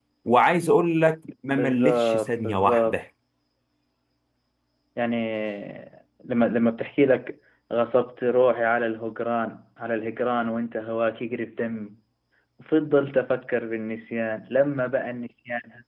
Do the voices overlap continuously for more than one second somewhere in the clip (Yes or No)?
Yes